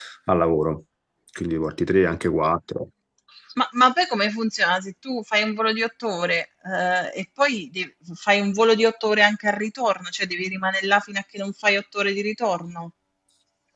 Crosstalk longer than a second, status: none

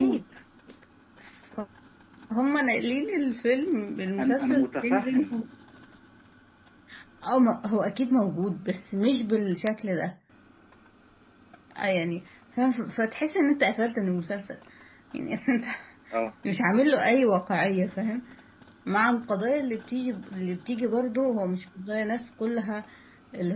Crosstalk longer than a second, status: present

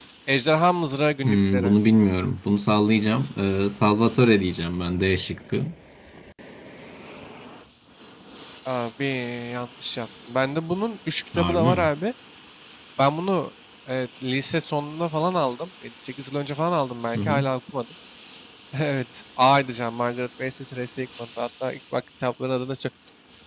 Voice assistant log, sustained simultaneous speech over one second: none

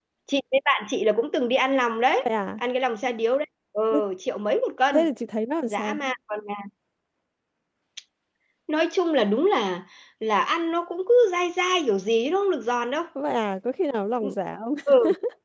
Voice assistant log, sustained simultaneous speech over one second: none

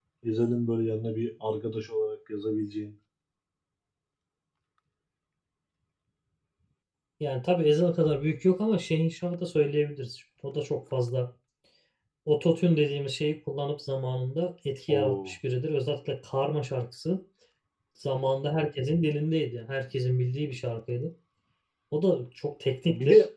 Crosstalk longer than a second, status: none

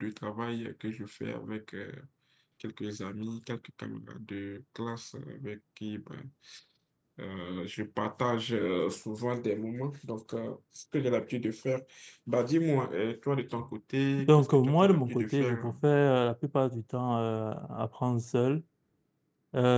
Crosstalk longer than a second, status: present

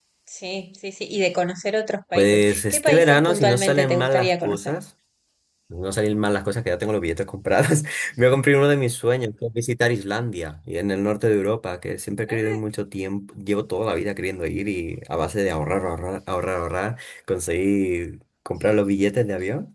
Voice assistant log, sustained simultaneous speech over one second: present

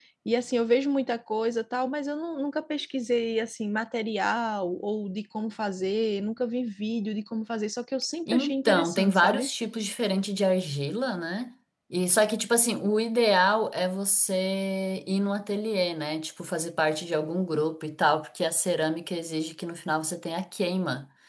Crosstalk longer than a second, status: present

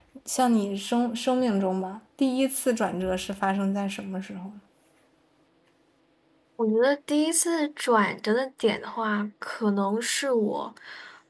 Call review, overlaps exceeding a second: none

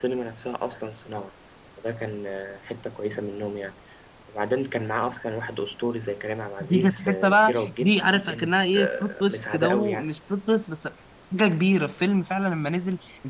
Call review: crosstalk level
present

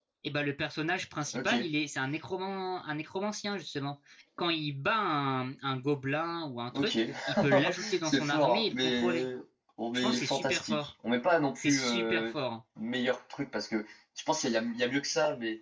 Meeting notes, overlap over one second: present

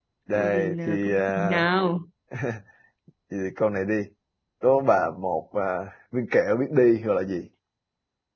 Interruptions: present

